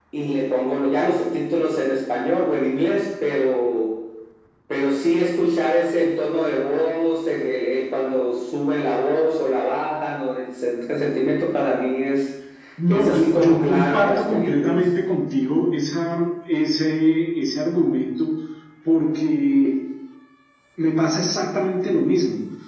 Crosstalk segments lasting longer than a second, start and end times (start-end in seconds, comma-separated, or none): 12.9-14.9